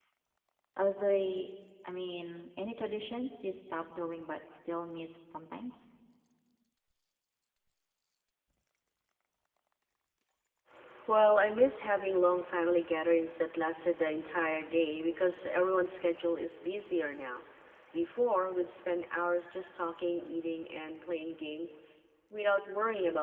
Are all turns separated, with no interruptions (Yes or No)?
Yes